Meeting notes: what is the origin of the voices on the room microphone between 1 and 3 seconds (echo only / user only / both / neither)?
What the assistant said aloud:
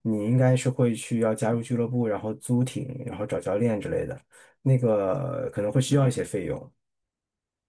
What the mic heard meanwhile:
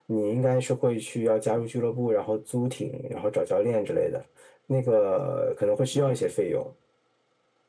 echo only